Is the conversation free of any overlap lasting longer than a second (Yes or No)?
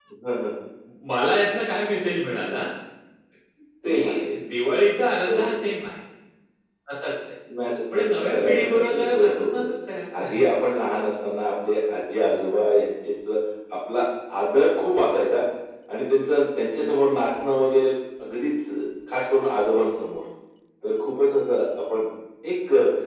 No